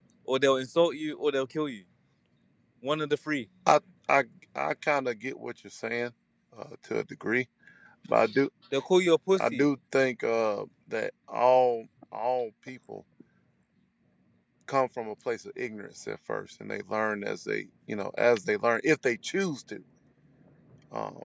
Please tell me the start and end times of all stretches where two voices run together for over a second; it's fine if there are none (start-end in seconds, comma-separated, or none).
none